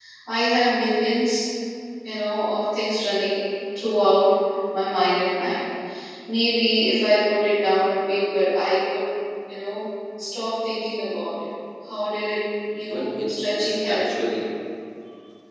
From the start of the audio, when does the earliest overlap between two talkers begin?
12.7 s

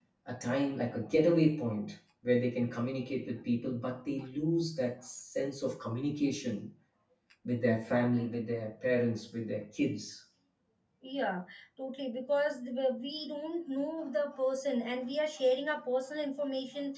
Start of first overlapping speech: none

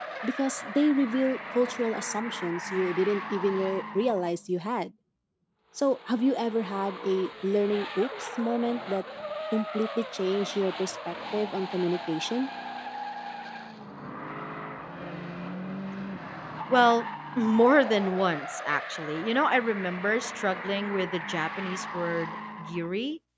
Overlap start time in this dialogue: none

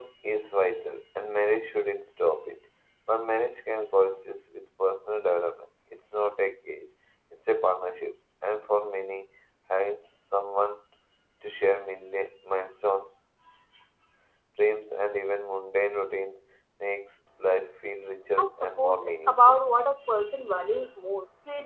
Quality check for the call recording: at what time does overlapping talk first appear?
18.4 s

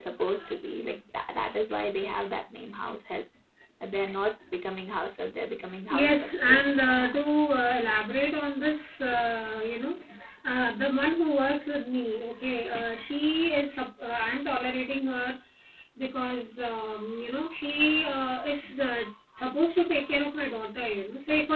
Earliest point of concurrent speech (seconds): 5.9 s

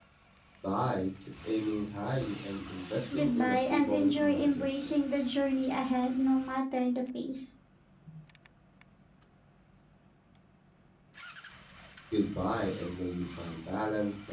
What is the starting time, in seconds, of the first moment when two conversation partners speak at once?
3.1 s

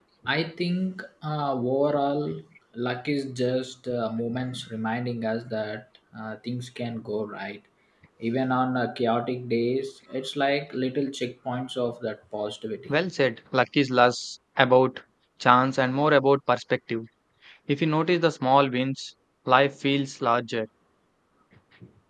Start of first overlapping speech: none

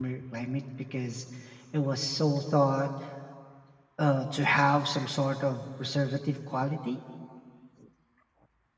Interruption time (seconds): none

